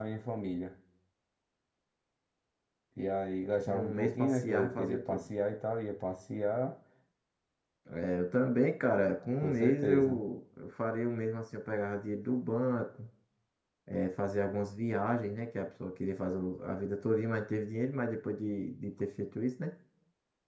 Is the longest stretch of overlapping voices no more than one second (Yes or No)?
No